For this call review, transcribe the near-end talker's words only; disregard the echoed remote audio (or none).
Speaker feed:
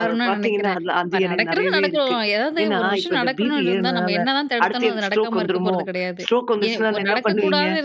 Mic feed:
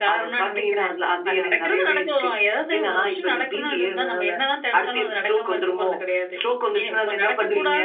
none